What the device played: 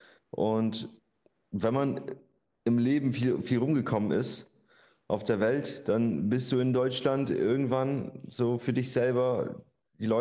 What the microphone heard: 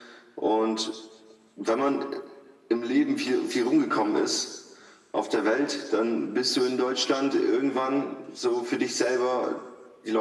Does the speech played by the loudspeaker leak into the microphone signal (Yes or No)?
Yes